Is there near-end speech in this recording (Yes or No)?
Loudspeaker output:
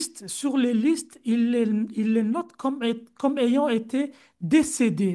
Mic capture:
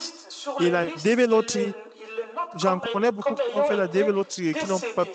Yes